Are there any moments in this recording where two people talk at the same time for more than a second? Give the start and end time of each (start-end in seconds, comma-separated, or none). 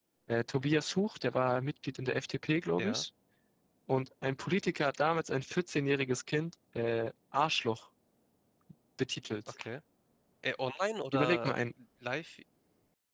none